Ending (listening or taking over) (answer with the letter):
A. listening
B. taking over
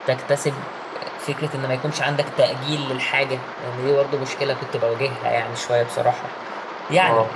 A